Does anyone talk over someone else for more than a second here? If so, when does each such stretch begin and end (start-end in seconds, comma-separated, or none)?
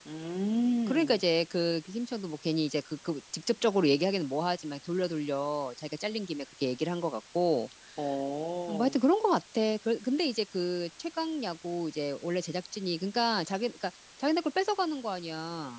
none